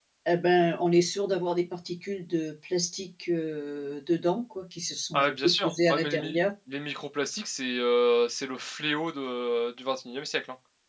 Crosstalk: present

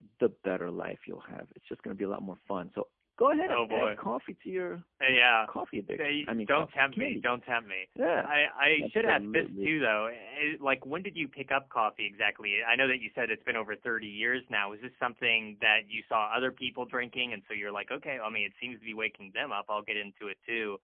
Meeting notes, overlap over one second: present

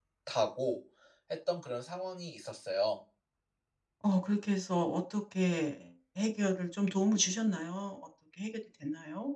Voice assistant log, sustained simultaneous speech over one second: none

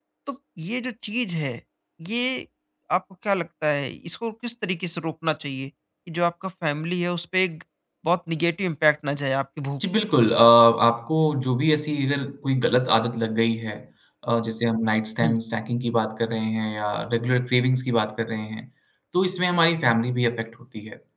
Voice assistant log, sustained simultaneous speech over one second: none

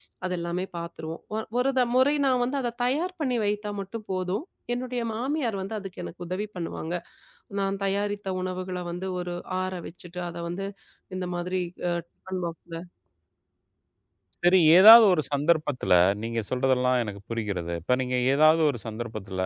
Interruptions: none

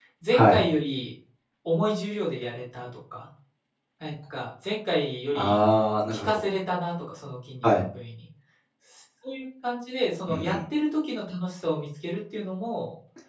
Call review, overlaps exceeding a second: none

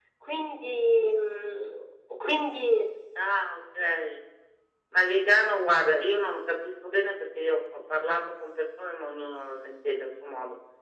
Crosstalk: none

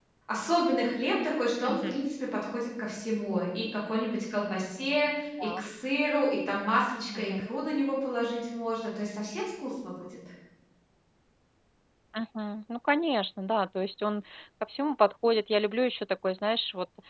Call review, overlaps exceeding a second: none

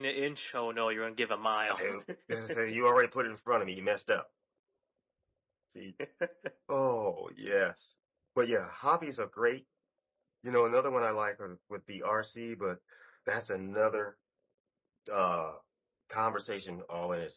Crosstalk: none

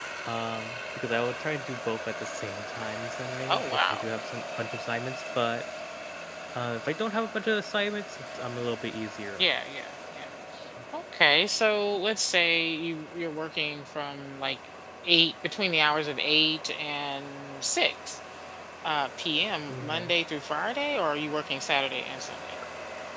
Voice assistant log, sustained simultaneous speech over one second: none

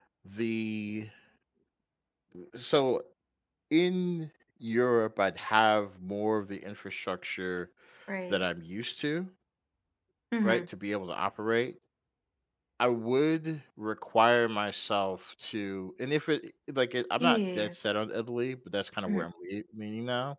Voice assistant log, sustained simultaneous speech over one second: none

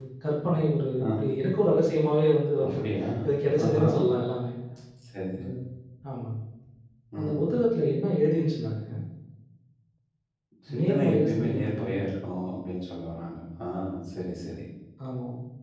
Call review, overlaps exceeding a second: present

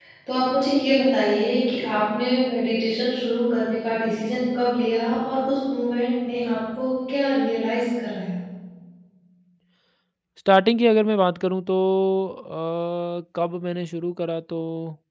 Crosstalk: none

